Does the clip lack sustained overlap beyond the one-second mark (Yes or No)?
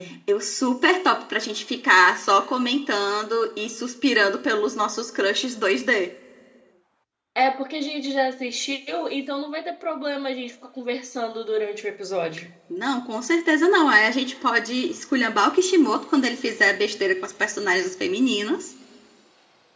Yes